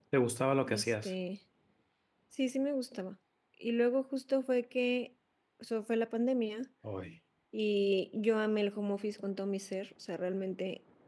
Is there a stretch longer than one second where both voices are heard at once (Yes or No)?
No